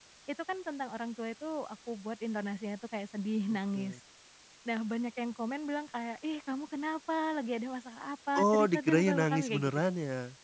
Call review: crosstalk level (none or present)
present